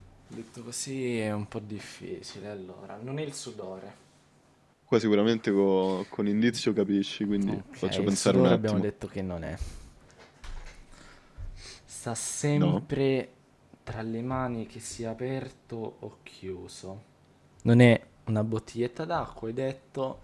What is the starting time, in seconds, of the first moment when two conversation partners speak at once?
7 s

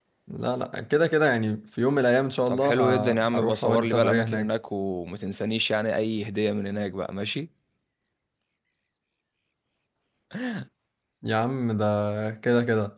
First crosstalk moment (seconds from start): 2 s

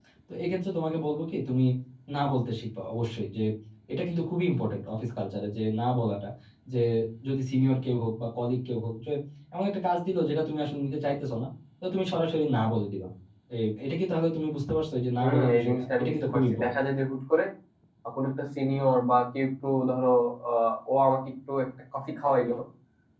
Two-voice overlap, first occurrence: 15 s

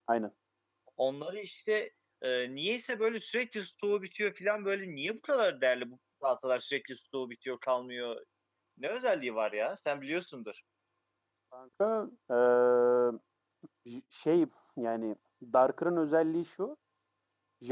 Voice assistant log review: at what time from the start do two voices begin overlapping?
none

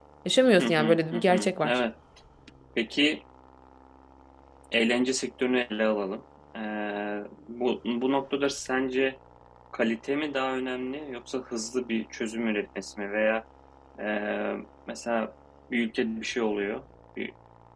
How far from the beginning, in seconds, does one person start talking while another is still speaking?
1 s

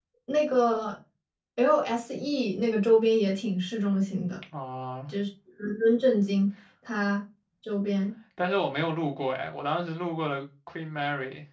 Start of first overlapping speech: none

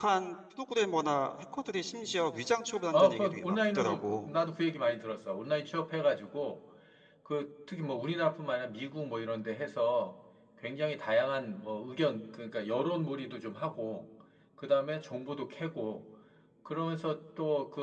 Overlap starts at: 3 s

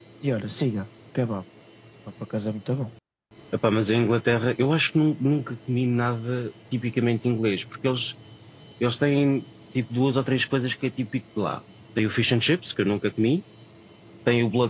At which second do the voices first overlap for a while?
none

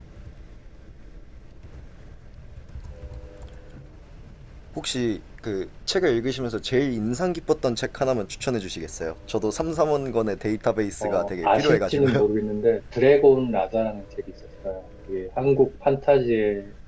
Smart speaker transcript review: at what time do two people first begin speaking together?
11 s

